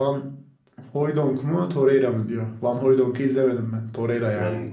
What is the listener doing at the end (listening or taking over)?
taking over